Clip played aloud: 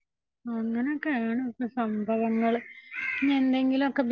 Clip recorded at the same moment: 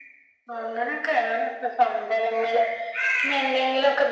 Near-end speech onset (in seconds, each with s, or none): none